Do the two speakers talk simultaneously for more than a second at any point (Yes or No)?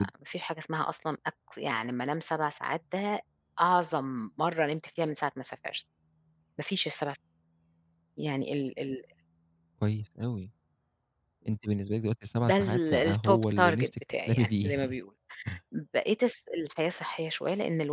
Yes